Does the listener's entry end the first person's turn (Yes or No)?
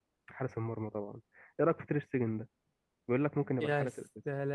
Yes